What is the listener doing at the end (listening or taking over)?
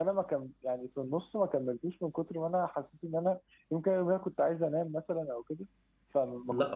taking over